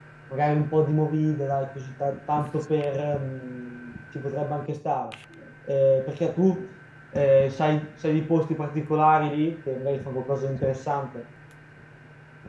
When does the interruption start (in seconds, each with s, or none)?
none